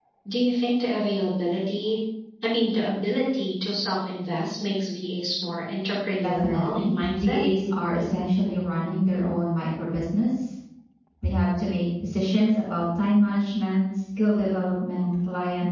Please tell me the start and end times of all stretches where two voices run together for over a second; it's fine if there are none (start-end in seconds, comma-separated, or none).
6.2-7.4